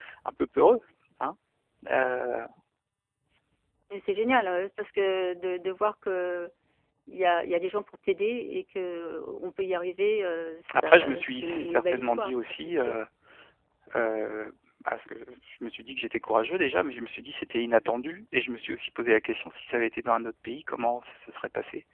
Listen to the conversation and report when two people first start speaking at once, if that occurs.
11 s

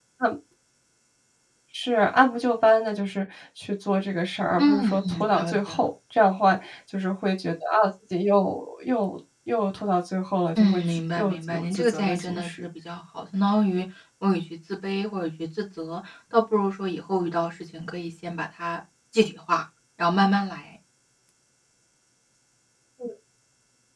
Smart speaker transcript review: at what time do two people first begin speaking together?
5 s

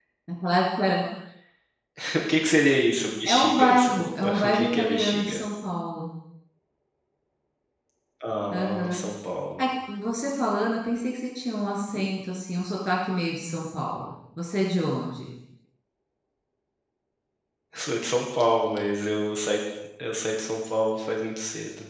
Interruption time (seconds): 3 s

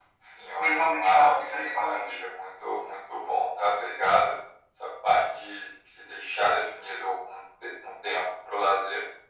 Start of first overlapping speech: 1 s

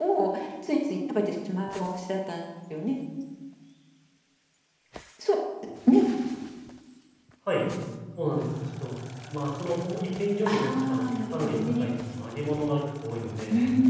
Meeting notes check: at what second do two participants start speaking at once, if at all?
10 s

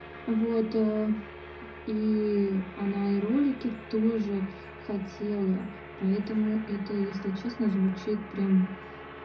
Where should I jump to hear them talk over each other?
none

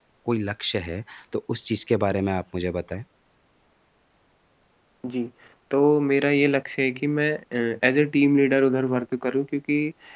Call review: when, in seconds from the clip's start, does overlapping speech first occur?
none

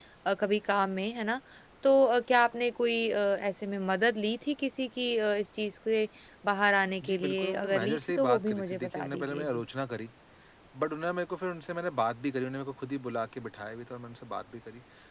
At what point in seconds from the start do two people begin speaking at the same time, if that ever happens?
7 s

